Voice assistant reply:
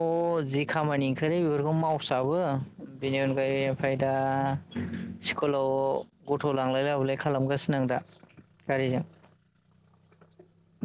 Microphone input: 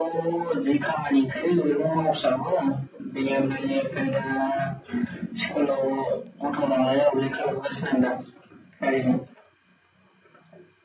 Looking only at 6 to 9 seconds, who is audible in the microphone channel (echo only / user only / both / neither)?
echo only